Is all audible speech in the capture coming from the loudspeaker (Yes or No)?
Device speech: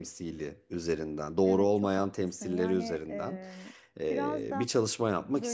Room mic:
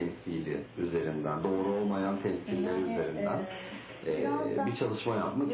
Yes